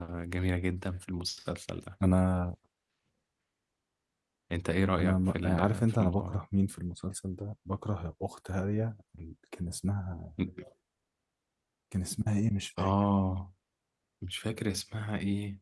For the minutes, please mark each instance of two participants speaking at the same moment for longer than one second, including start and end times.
5.0-6.4

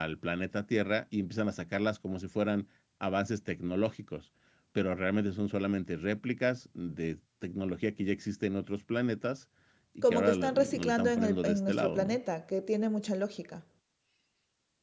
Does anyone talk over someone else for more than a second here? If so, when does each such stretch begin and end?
10.0-12.2

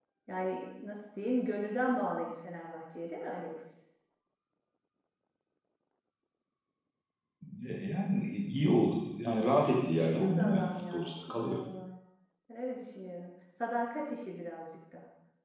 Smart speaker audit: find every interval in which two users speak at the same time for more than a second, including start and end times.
9.8-11.6

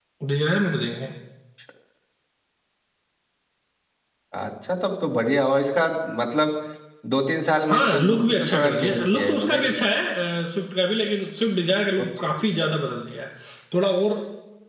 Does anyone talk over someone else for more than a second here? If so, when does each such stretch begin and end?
7.7-9.7

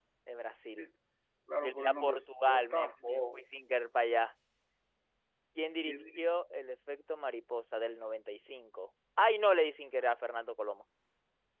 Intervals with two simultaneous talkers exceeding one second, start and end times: 1.6-3.4

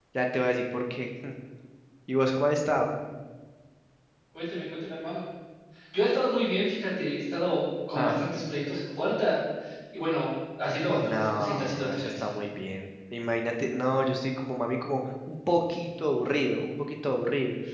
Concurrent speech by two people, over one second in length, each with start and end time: 10.9-12.1

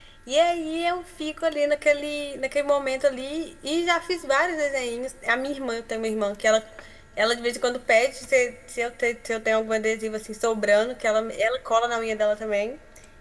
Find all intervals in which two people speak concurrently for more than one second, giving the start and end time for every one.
none

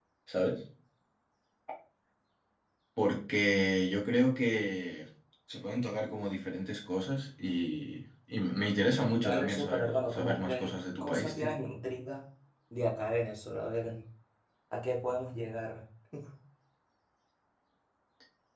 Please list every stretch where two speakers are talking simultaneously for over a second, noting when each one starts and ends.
9.2-11.5

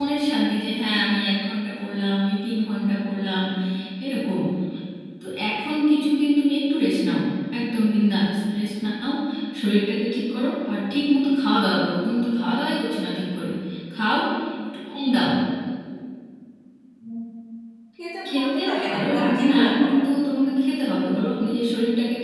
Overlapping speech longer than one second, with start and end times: 18.3-20.0

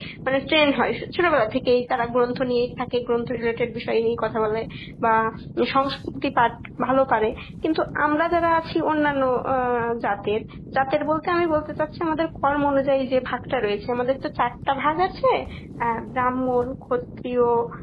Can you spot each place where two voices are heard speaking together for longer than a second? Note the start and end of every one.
none

